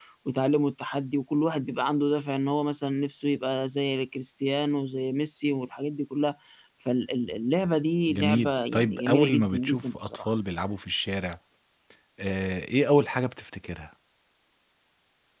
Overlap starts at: 8.1 s

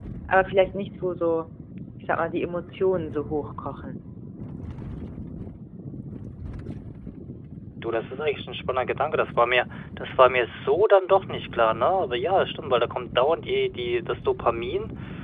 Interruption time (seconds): none

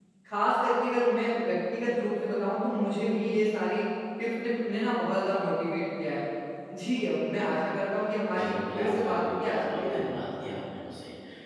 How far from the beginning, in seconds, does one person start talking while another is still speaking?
8.3 s

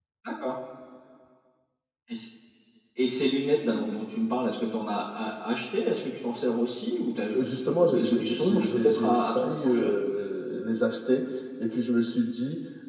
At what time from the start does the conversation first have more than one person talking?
7.3 s

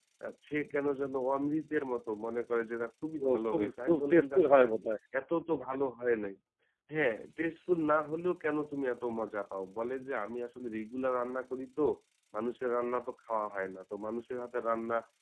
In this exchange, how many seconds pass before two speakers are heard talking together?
3.2 s

